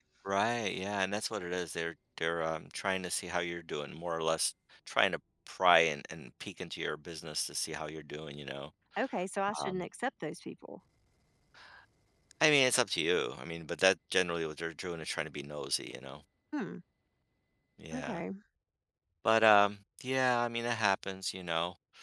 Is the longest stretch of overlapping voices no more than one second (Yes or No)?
Yes